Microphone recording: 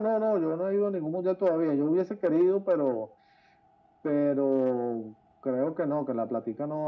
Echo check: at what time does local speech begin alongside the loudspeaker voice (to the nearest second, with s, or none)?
none